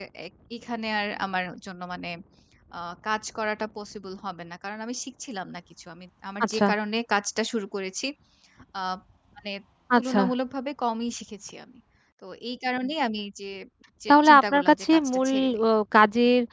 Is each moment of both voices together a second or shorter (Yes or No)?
No